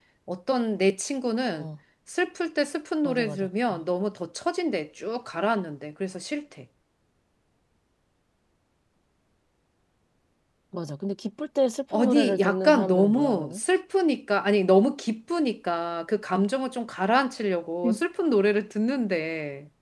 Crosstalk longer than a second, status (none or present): present